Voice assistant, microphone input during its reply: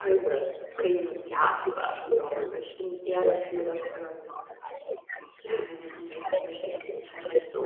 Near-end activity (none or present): present